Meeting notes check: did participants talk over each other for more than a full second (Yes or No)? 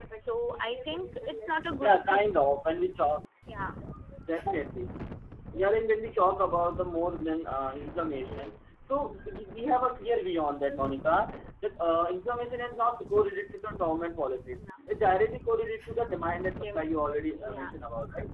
No